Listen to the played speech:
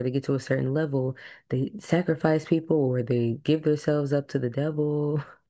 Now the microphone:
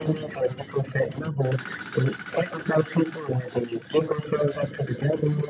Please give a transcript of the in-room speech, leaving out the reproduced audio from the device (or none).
none